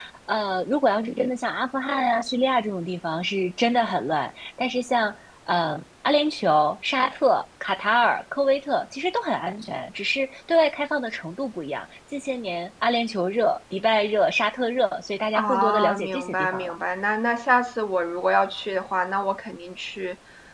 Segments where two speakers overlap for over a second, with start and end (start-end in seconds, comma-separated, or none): 15.3-16.8